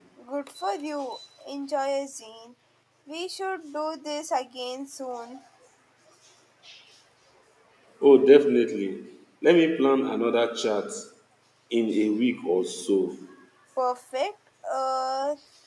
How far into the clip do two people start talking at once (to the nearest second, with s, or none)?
none